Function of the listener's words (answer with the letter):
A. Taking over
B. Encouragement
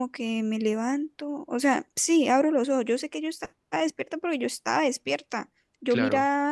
B